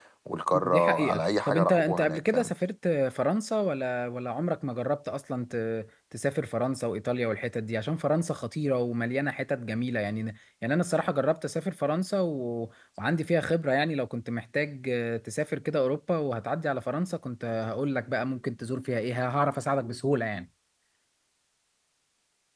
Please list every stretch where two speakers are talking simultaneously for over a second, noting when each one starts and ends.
0.5-2.5

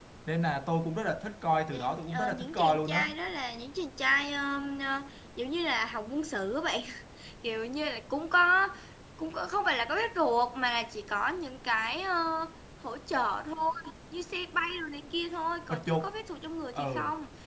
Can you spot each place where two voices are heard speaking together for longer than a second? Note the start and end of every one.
1.7-3.1

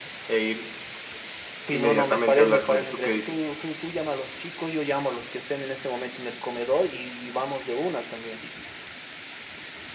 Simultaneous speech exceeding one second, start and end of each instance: 1.7-3.4

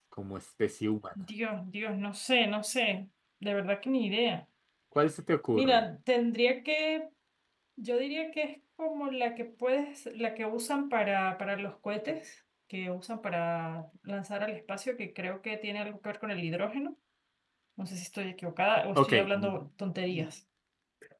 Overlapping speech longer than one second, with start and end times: none

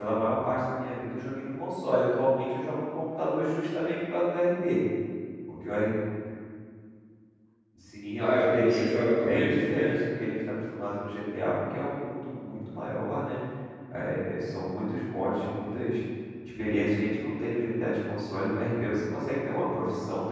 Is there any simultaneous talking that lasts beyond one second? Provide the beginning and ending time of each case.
8.2-10.0

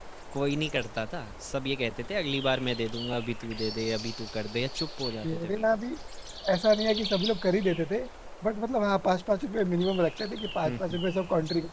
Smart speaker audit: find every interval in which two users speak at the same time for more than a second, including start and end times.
none

